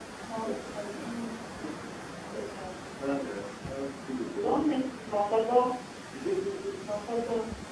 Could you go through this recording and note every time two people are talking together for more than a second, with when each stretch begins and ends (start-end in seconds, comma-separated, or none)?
none